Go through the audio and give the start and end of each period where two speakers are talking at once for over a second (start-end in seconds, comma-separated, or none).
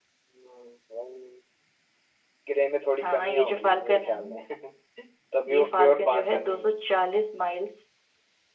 3.0-4.4, 5.5-6.7